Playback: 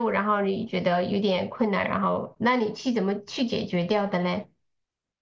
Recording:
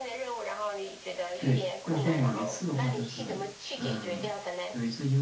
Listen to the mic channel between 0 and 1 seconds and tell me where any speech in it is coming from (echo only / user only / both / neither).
echo only